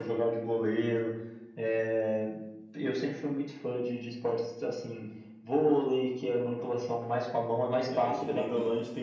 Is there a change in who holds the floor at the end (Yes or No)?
Yes